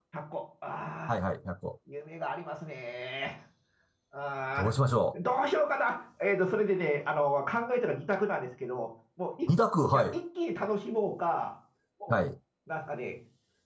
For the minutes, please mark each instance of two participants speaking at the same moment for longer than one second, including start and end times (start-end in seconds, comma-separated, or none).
none